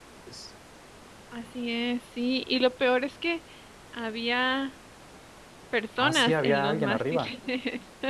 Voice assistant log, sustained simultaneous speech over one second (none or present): present